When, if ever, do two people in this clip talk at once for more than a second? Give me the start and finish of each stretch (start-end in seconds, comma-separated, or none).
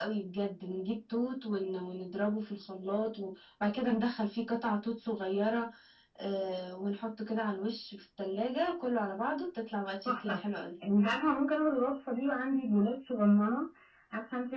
none